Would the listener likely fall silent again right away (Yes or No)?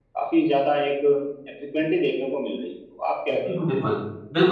No